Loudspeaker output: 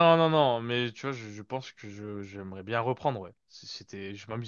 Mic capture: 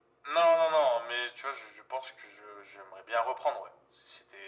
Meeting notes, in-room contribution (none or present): none